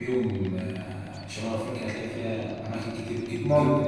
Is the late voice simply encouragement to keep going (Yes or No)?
Yes